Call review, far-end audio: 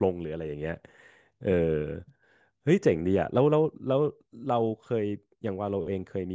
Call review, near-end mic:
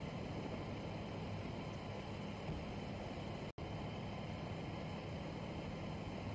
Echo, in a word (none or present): none